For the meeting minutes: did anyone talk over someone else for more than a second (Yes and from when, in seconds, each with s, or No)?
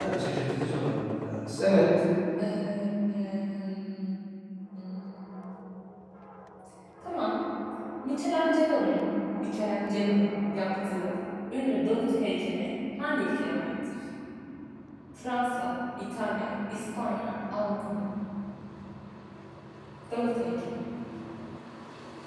No